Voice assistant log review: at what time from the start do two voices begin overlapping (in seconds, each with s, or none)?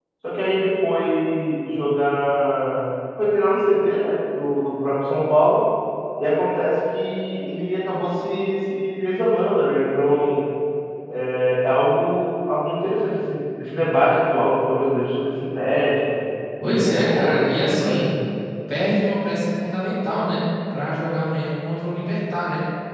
16.6 s